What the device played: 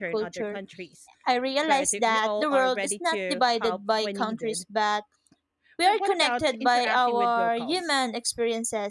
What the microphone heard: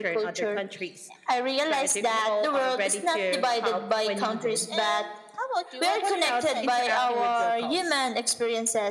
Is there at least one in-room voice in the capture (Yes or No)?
Yes